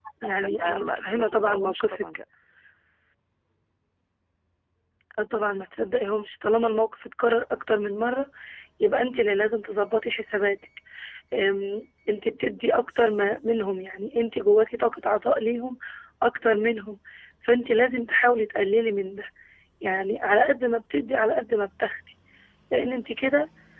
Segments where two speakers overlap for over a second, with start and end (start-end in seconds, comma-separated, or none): 0.6-2.0